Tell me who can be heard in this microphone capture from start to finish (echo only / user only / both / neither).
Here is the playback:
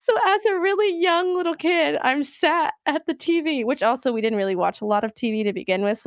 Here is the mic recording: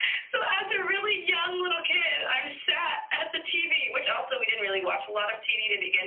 echo only